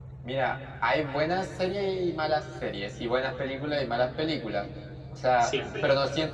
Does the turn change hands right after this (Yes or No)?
No